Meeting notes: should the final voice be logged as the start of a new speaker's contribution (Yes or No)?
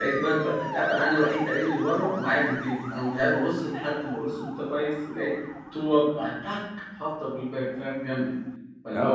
Yes